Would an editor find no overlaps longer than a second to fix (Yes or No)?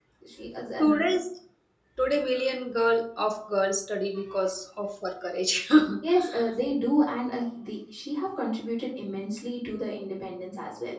Yes